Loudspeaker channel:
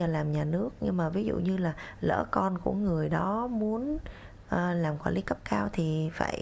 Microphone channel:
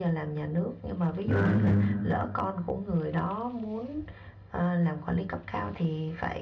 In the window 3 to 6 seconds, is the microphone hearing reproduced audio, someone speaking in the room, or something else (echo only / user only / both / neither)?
echo only